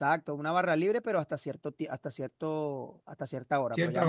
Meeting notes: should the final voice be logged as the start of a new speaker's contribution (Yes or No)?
No